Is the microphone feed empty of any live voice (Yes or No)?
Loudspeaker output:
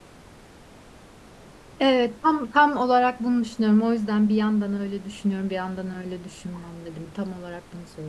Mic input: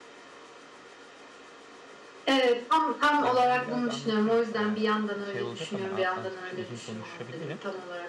No